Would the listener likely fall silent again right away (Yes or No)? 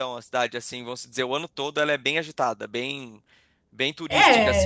No